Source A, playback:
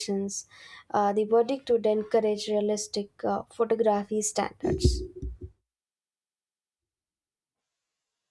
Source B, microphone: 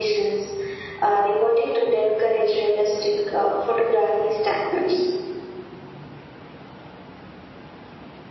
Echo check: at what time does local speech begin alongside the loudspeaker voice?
none

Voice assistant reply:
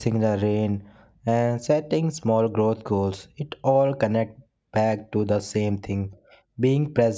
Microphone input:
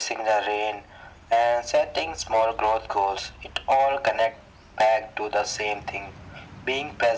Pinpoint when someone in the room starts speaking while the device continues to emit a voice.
none

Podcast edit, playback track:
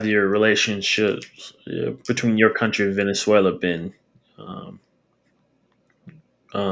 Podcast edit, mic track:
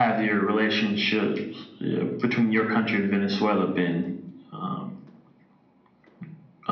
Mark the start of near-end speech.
none

